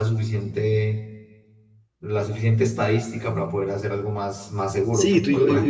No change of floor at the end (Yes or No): No